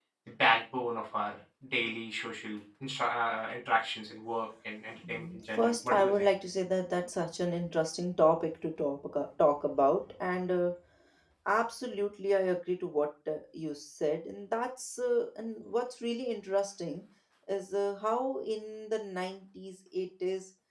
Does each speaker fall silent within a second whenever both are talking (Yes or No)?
No